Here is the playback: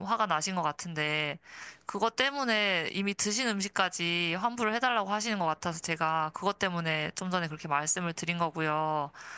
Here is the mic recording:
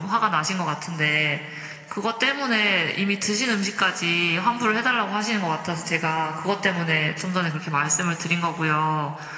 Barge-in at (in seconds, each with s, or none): none